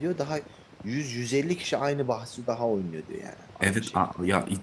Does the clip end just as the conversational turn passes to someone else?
Yes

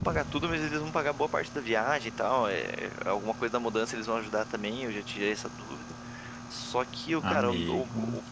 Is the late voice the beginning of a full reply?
No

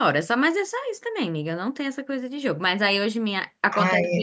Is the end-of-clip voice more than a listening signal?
No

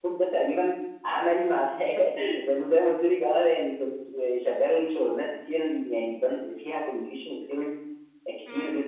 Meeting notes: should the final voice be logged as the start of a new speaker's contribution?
No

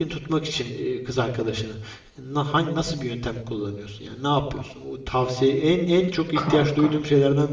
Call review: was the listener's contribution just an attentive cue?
Yes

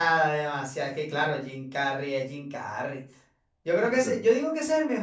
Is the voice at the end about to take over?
No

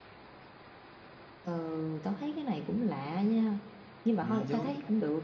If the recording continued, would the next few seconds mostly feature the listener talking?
No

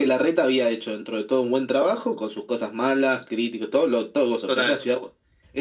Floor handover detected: No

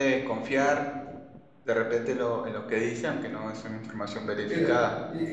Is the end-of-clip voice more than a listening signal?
Yes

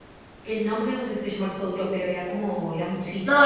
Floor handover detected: Yes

